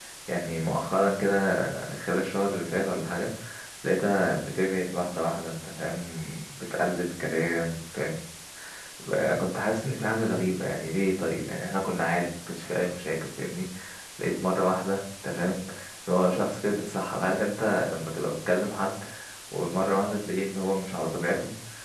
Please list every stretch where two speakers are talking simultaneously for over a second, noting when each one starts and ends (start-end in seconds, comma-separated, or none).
none